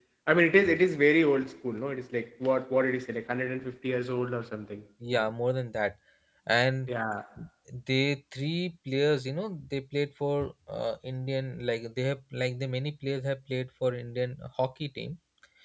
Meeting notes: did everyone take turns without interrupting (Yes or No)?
Yes